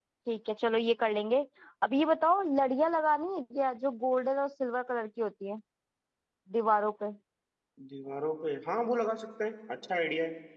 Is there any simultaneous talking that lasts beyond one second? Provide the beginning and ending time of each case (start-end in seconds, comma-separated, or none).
none